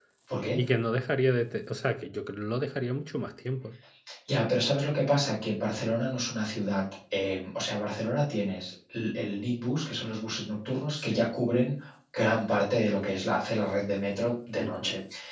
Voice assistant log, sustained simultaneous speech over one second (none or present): none